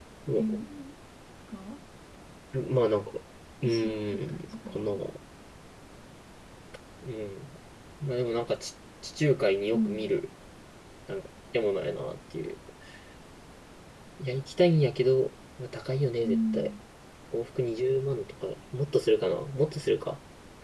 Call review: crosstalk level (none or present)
present